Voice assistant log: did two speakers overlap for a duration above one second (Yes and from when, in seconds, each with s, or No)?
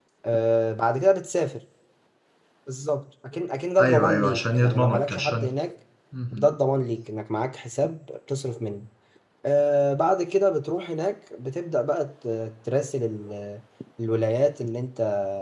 Yes, from 3.8 s